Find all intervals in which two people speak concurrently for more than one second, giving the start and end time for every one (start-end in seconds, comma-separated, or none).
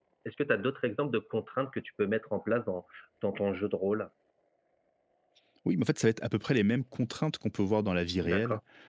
none